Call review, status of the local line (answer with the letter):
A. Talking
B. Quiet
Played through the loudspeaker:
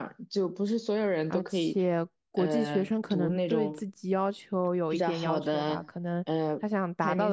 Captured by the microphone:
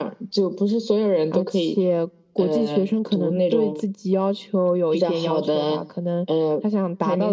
B